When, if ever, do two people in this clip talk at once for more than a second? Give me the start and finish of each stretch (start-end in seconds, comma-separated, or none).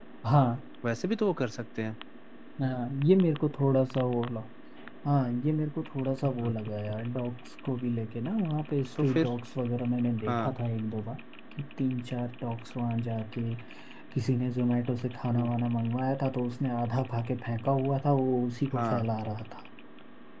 none